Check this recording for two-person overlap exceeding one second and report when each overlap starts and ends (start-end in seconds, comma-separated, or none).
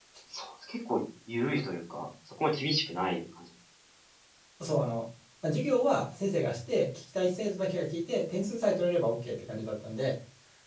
none